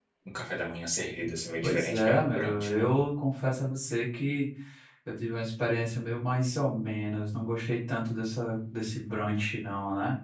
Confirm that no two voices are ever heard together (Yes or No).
No